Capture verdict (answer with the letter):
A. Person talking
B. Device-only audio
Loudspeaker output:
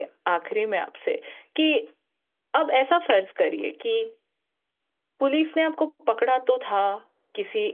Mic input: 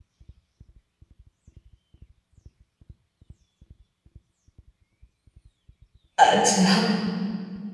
A